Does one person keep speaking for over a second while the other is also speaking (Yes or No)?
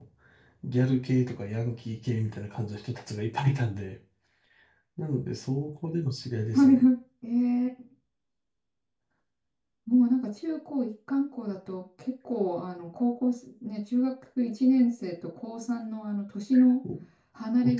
No